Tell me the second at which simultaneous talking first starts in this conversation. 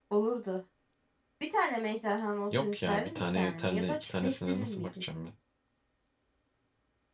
2.5 s

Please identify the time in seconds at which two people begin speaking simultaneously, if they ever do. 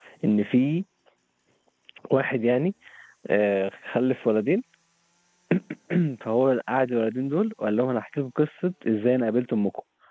none

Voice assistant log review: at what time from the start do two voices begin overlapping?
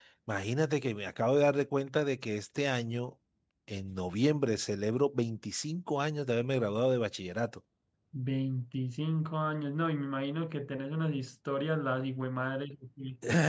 none

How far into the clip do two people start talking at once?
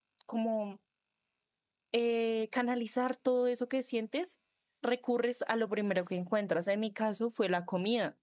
none

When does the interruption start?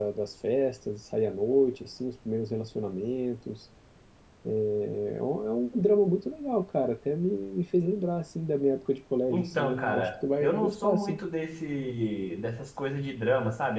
9.3 s

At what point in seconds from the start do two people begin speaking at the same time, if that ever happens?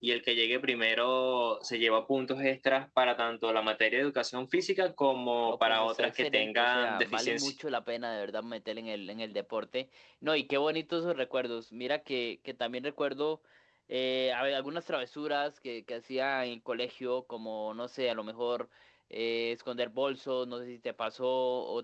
5.5 s

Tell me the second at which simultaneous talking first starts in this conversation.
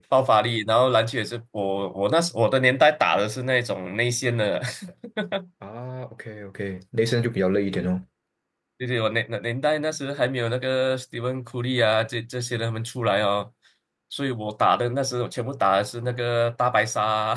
none

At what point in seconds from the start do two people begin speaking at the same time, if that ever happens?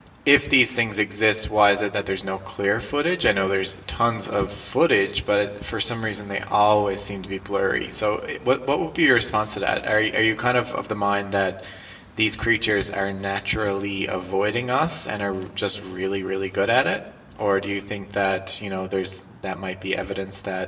none

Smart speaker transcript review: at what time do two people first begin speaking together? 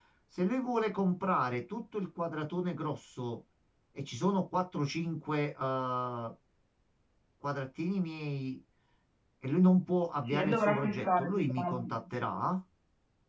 10.2 s

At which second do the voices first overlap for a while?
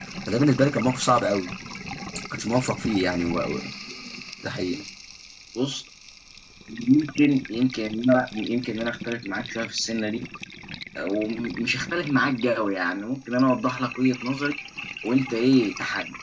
none

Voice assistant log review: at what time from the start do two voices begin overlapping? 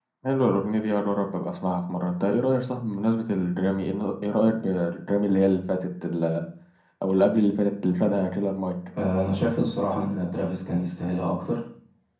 none

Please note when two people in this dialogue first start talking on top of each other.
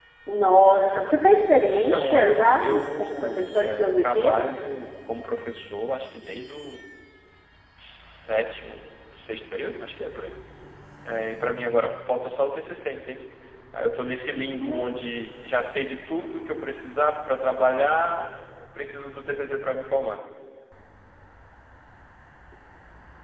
1.8 s

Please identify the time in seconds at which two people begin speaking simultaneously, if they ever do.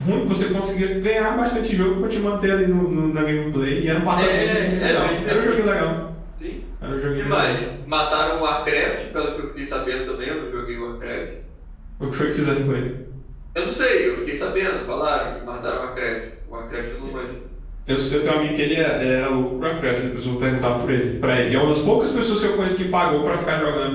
4.2 s

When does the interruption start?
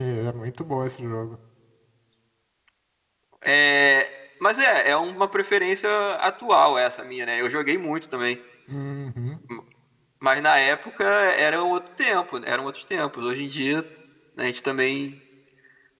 none

